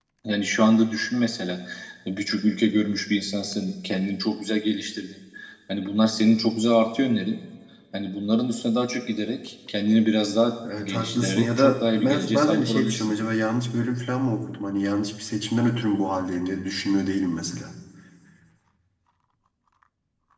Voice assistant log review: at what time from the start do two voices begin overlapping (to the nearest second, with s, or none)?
11 s